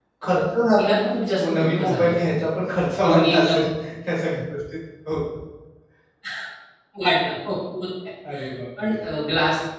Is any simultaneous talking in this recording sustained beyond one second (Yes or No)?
Yes